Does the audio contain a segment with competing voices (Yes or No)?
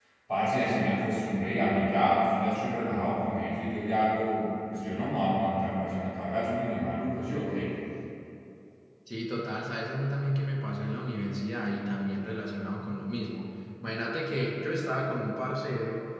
No